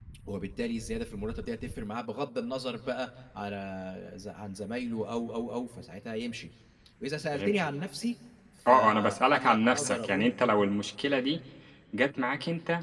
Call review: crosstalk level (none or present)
present